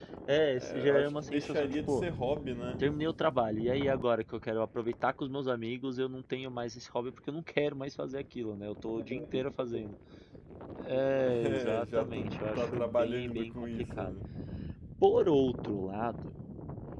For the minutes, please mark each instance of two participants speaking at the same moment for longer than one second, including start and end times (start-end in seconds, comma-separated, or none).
0.6-2.0, 11.2-14.2